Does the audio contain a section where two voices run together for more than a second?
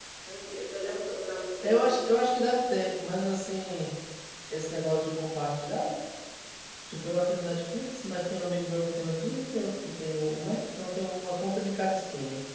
No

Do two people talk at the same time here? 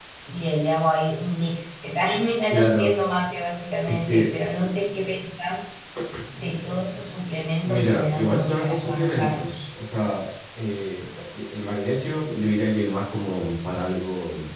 Yes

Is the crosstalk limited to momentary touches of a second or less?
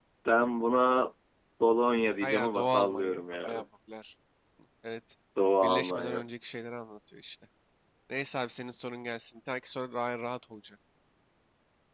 No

